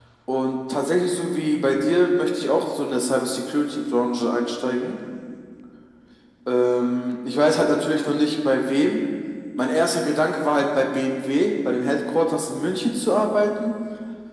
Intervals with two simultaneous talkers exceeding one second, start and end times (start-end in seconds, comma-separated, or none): none